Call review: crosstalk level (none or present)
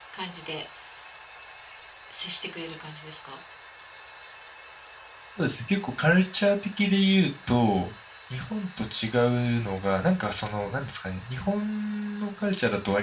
none